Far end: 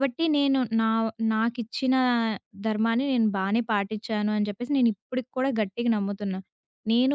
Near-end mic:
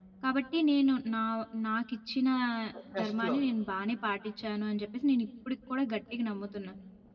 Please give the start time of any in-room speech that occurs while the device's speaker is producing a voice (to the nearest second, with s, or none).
3 s